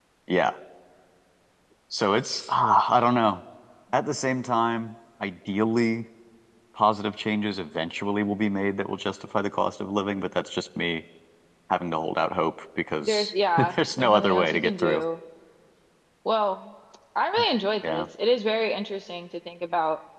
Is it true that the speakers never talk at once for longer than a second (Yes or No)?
No